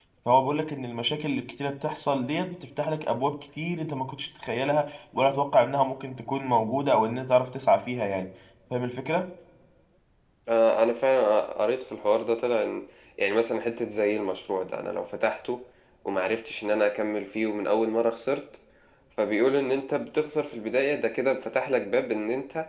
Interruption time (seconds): none

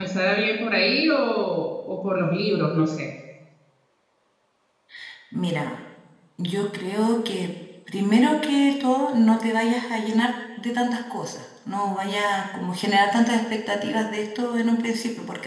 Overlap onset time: none

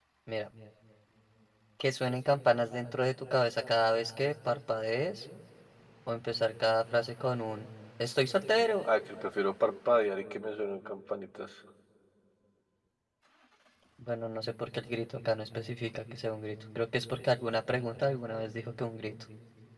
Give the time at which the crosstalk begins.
none

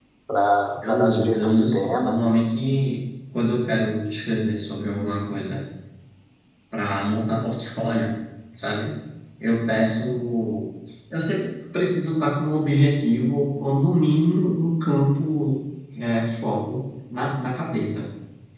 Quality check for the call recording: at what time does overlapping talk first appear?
0.9 s

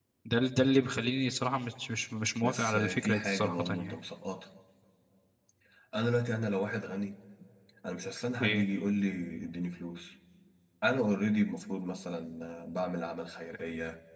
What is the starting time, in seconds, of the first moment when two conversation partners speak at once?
2.4 s

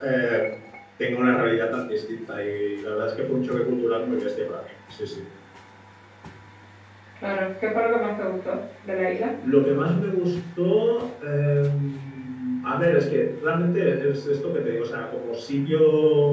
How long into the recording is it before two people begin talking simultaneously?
none

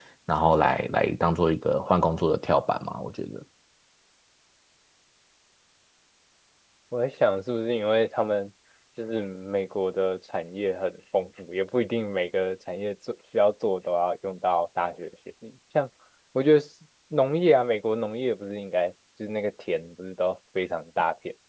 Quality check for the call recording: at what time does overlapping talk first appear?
none

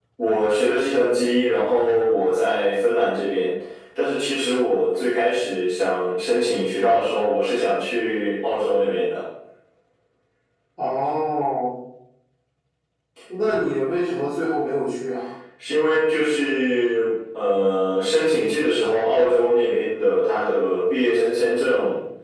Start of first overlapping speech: none

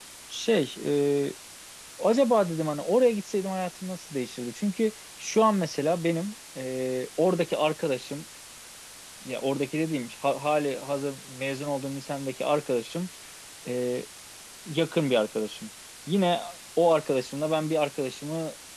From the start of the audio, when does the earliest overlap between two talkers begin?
none

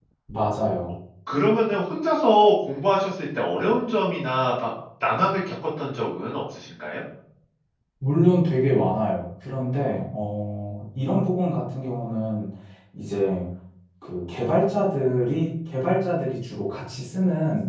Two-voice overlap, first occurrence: none

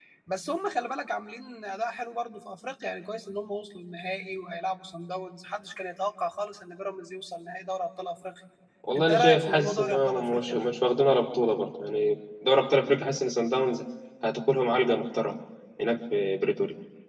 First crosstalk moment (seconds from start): 9.0 s

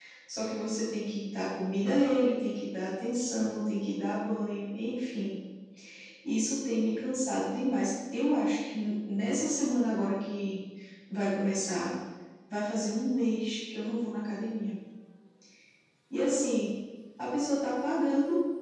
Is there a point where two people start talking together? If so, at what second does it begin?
none

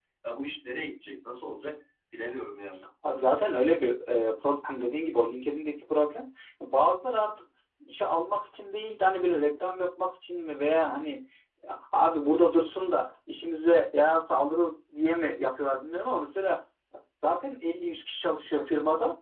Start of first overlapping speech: none

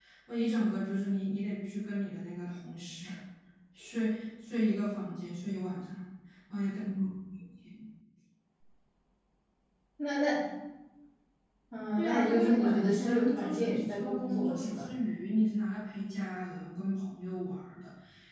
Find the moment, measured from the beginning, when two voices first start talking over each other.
11.9 s

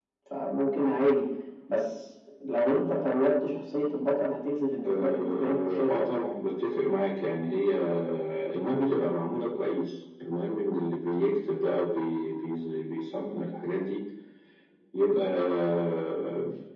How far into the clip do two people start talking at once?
4.8 s

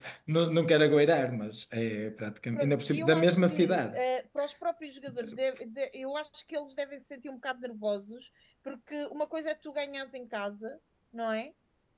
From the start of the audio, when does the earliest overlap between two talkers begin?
2.5 s

